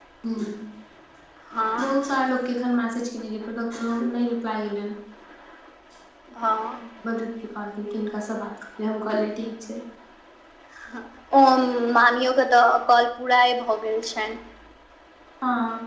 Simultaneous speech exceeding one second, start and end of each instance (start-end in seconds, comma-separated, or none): none